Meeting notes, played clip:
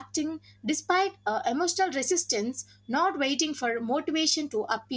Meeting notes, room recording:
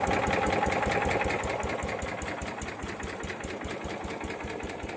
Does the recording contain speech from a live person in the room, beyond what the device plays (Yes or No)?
No